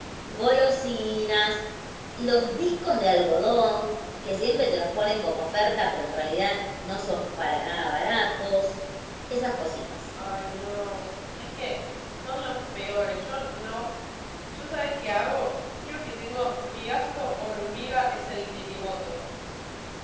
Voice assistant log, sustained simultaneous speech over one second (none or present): none